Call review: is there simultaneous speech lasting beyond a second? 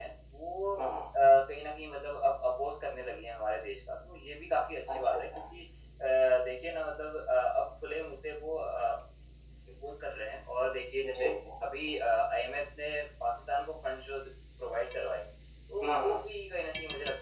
No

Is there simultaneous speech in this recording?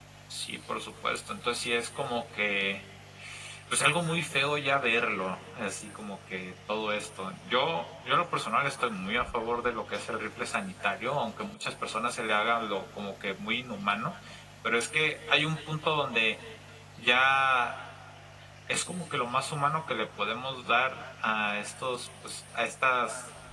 No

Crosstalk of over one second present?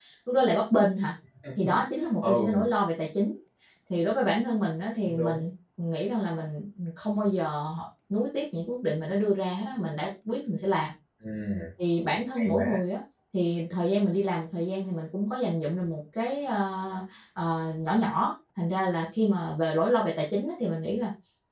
No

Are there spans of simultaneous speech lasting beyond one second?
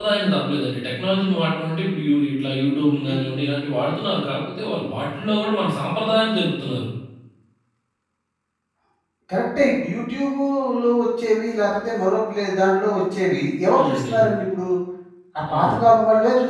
No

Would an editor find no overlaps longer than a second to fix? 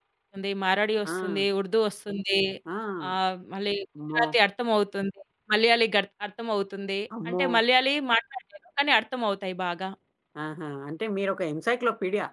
Yes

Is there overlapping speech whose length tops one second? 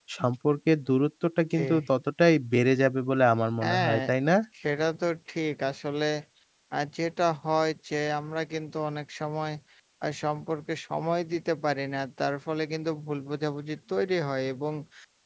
No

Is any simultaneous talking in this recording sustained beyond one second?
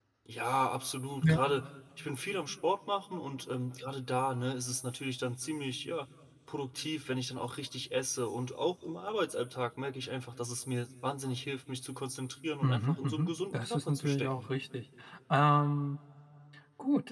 Yes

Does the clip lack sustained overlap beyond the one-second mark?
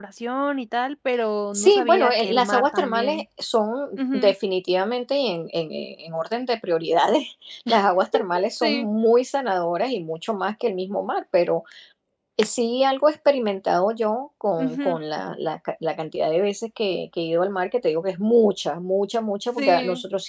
No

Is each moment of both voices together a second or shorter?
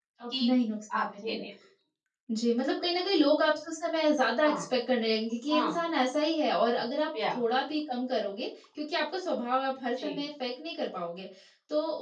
Yes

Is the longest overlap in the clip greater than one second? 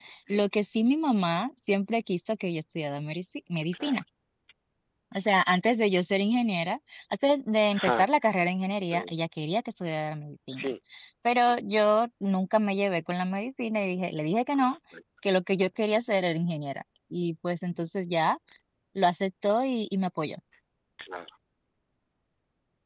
No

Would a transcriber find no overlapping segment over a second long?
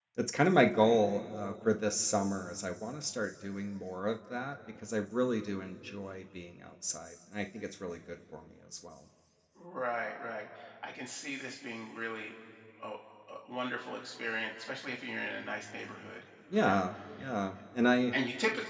Yes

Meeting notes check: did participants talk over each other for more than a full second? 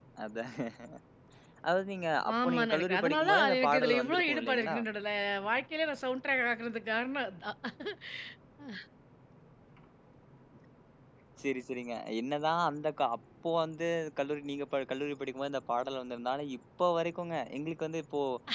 Yes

